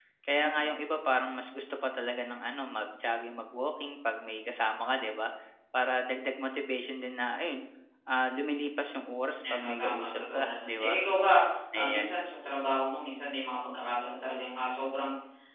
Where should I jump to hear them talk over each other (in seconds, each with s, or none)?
9.4 s